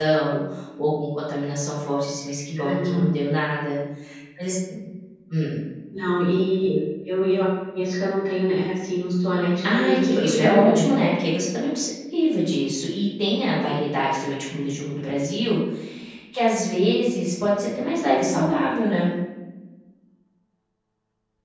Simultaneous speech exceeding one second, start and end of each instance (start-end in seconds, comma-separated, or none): 9.6-11.1